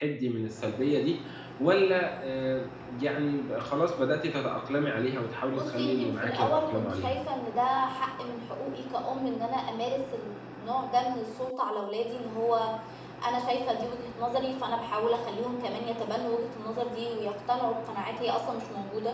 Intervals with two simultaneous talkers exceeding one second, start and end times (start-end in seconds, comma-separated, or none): 5.5-7.2